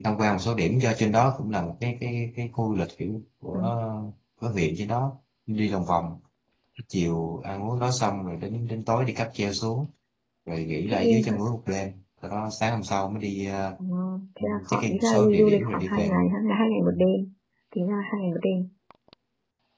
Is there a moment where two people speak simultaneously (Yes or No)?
Yes